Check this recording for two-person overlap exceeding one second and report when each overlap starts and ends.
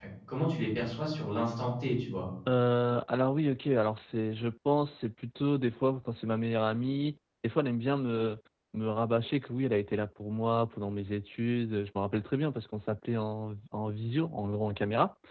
none

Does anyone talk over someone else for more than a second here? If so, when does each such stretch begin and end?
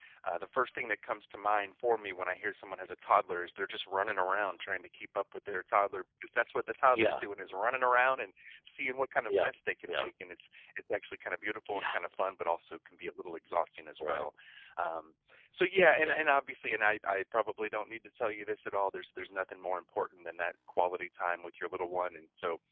none

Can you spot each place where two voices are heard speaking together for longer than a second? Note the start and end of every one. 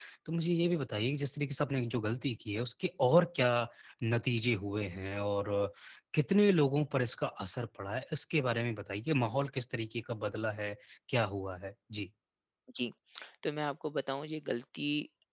none

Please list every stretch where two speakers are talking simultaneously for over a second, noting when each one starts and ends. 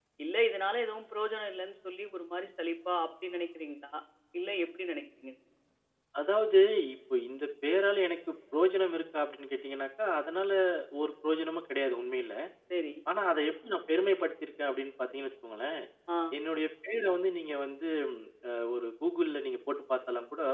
none

